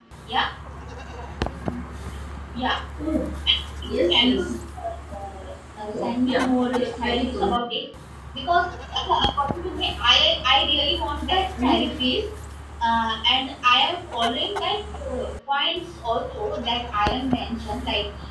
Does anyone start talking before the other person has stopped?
Yes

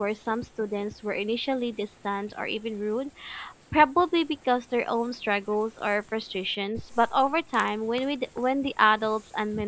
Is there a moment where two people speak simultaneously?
No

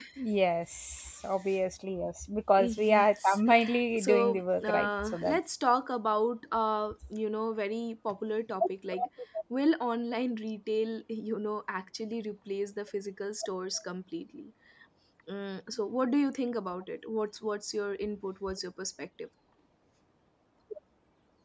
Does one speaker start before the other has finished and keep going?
Yes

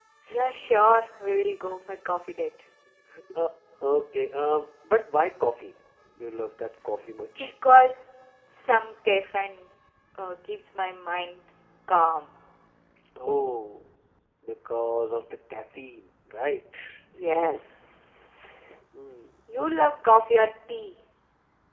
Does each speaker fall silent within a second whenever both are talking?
Yes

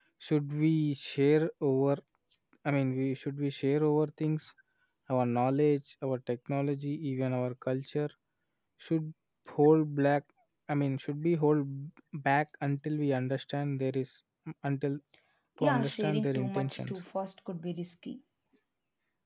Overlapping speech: Yes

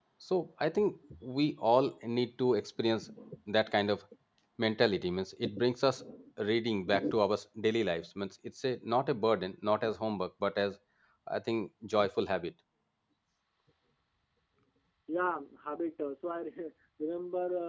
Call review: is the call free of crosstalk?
Yes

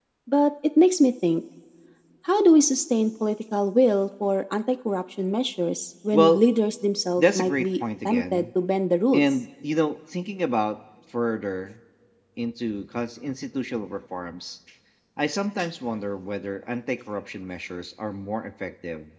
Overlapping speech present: Yes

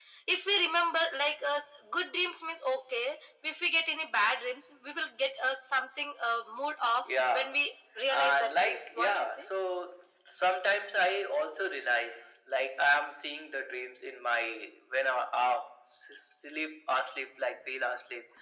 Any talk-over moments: Yes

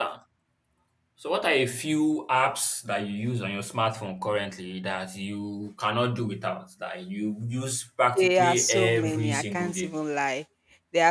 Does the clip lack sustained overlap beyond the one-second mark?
No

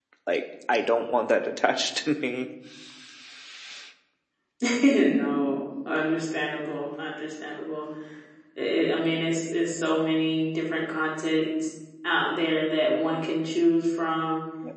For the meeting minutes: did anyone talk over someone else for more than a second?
No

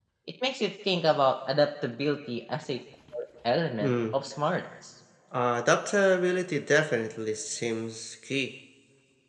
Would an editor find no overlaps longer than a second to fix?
Yes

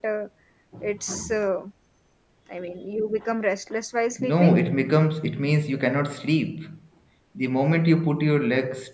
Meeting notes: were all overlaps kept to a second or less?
Yes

